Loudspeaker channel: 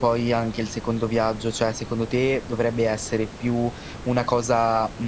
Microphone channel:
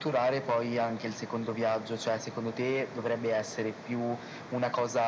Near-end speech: none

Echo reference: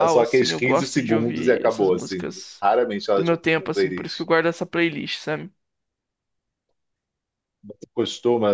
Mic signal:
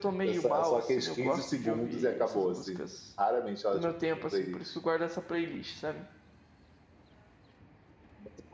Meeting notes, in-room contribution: none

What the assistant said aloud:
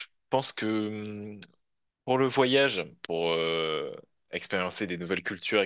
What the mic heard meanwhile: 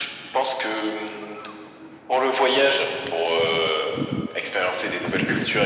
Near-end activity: none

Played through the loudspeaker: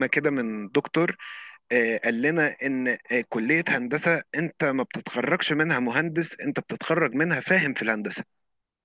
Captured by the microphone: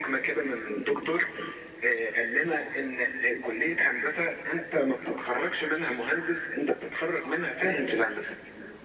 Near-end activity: none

